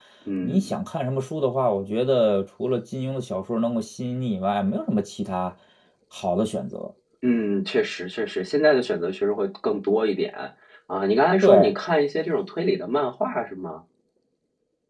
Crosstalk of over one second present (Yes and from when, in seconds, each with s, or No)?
No